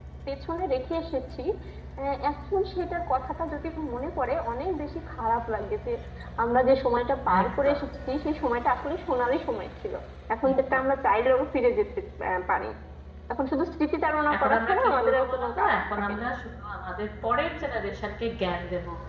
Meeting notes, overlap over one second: present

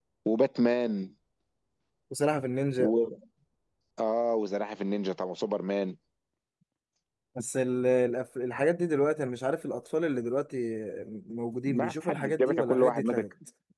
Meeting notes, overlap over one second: present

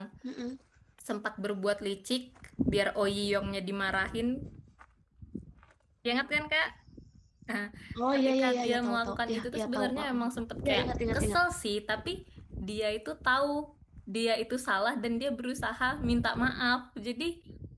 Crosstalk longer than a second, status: present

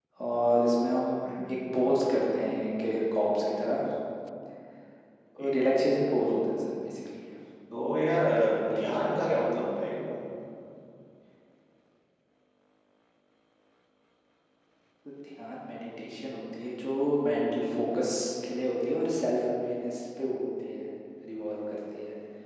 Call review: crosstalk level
present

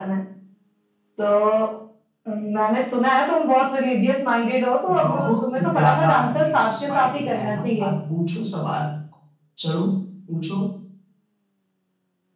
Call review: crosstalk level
present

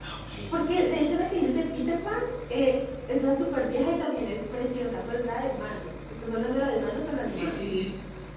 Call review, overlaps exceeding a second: none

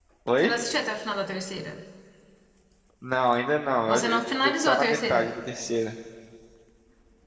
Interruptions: present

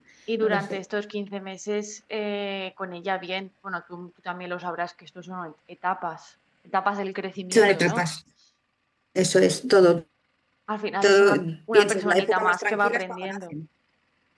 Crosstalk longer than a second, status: present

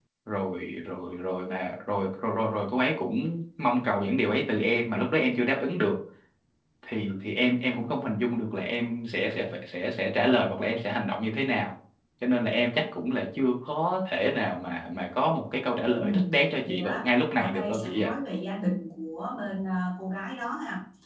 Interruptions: present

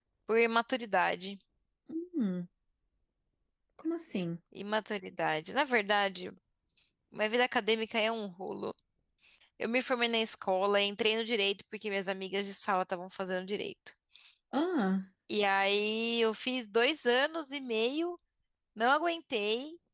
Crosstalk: none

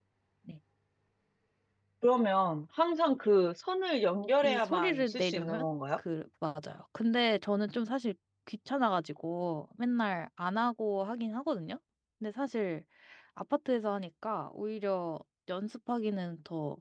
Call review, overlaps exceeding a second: present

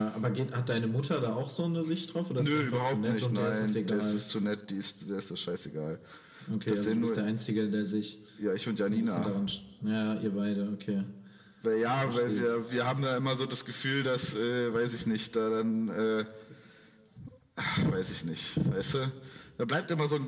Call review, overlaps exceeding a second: present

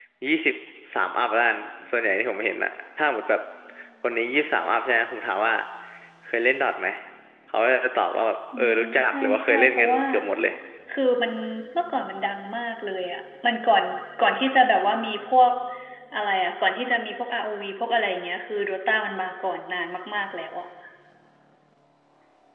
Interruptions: present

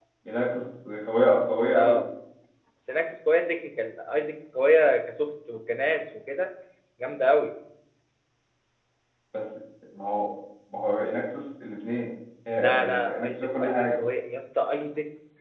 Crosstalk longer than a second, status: present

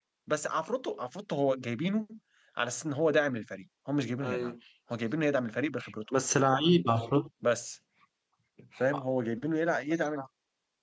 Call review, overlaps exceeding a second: none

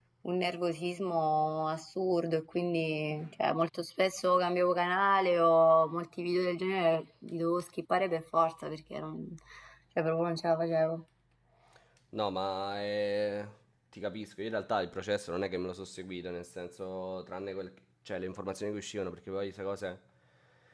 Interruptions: none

